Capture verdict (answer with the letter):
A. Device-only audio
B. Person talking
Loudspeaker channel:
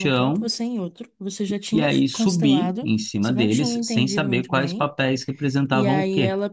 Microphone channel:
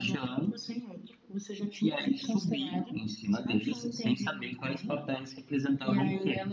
A